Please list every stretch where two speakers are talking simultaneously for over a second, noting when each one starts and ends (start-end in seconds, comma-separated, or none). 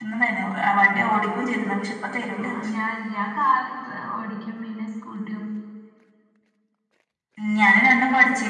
none